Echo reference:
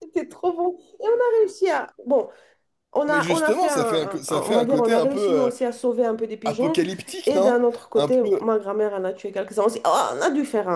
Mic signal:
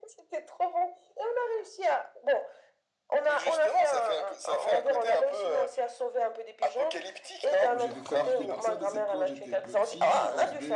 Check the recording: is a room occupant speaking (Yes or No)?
Yes